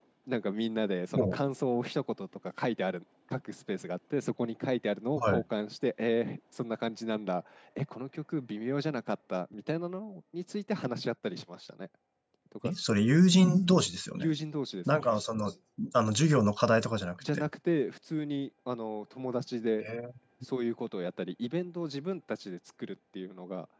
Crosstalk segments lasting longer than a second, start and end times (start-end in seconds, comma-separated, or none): none